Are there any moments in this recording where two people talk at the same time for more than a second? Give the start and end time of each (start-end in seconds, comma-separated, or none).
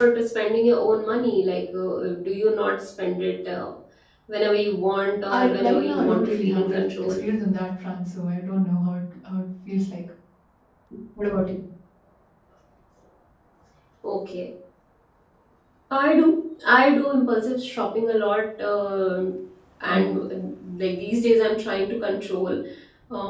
5.3-7.2